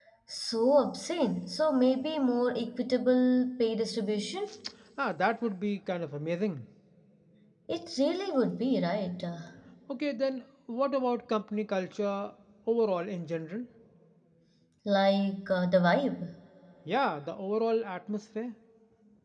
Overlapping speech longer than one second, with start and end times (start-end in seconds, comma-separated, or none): none